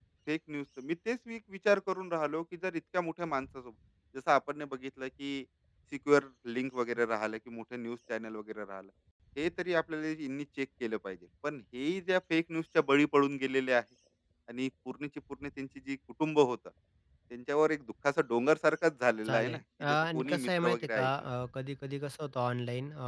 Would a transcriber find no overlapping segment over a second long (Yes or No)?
No